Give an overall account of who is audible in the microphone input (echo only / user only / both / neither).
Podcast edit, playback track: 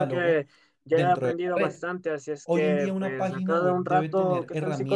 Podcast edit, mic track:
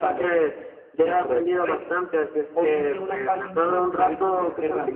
echo only